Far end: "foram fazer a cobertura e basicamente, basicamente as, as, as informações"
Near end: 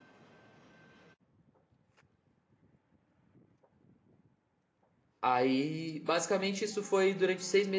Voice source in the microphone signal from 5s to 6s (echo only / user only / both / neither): user only